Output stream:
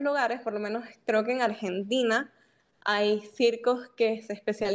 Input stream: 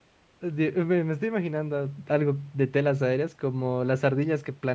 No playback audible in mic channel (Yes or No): Yes